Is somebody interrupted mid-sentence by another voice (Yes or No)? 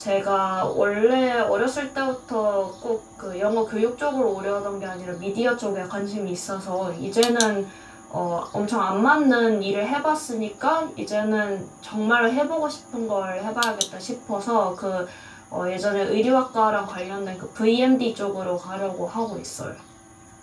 No